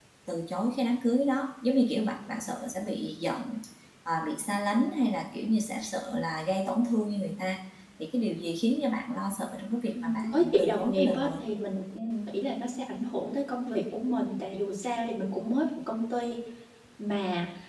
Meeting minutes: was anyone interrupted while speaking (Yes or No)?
Yes